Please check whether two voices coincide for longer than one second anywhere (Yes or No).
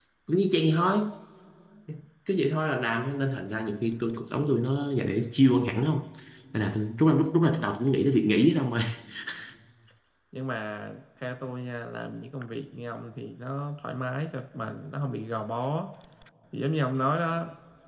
No